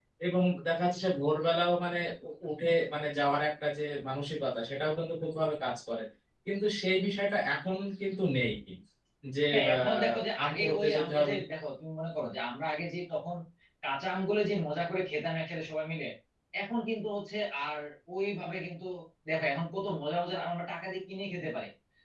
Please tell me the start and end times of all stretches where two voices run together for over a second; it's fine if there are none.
9.5-11.4

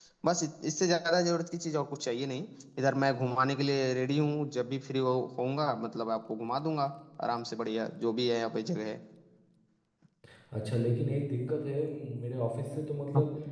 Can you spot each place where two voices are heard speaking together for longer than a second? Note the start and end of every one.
none

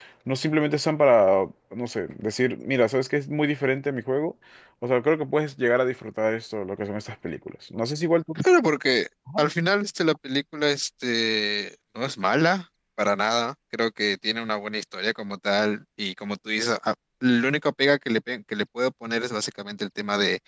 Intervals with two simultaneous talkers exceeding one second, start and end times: none

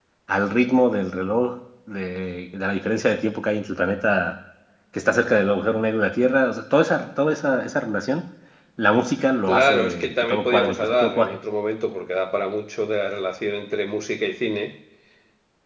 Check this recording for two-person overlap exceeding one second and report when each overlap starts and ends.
9.5-11.4

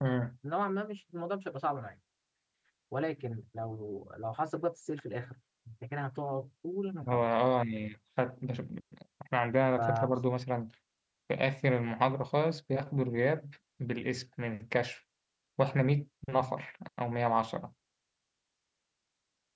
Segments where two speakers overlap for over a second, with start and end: none

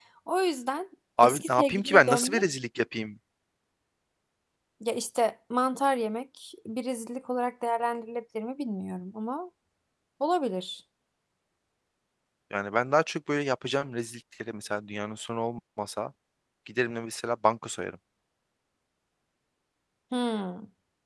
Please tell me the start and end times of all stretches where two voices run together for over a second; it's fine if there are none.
1.2-2.4

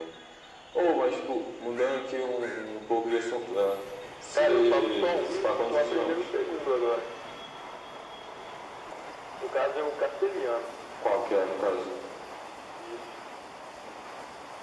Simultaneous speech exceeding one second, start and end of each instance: 4.3-6.3

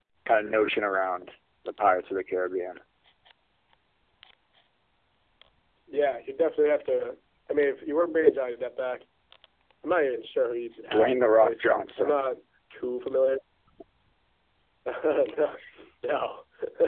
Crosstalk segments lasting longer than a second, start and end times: 10.9-12.1

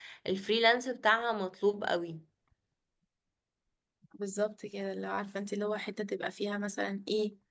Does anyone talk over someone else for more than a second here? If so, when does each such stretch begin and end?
none

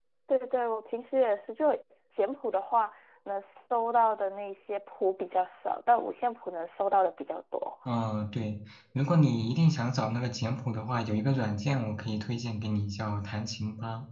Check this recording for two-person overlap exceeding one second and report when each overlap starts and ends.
none

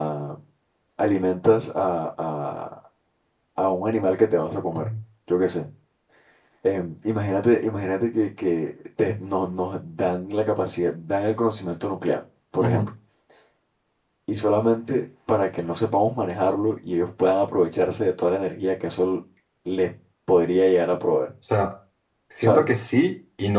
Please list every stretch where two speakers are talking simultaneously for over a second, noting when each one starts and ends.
none

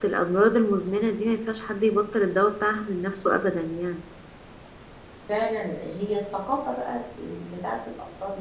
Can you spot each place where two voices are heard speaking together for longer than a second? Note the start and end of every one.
none

